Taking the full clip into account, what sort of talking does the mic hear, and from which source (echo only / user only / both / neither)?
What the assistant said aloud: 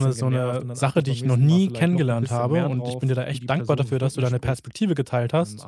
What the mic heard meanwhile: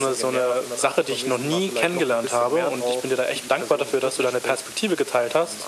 echo only